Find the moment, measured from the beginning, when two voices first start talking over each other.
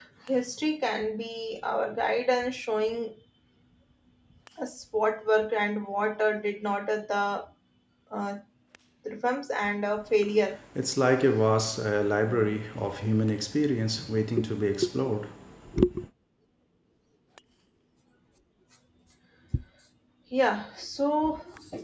none

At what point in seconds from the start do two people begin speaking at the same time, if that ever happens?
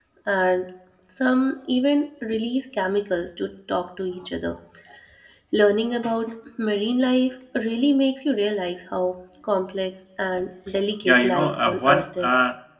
11 s

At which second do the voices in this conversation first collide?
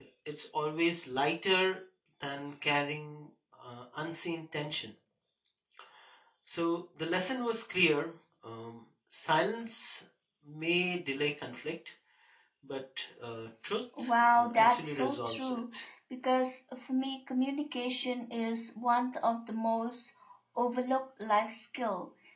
14 s

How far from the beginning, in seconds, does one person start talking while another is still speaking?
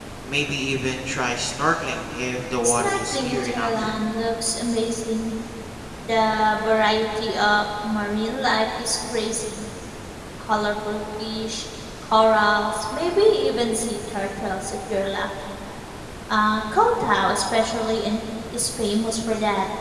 3 s

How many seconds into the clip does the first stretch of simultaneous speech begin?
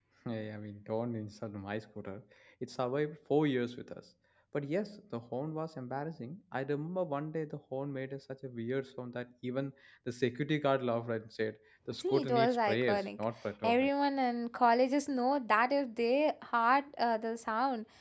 12 s

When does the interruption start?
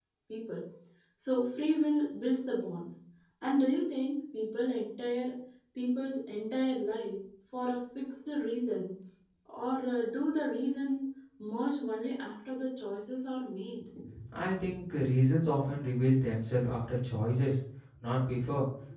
none

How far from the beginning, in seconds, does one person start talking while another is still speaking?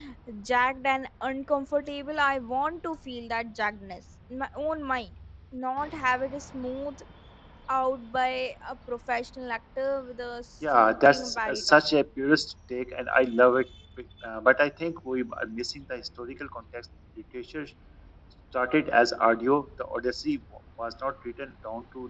11 s

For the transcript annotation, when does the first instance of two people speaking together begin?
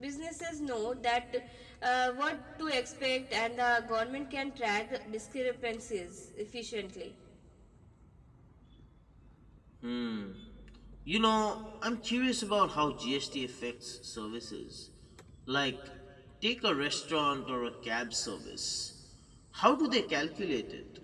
none

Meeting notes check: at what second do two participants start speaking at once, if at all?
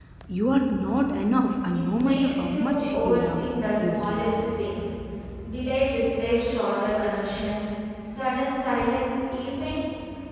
2 s

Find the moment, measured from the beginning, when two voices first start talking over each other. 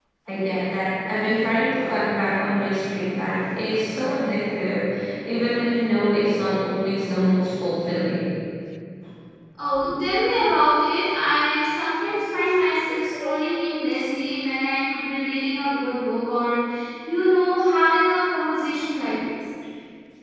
none

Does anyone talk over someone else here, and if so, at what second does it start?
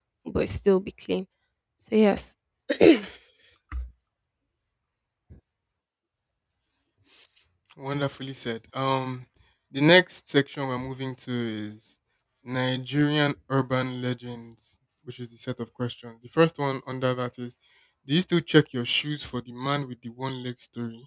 none

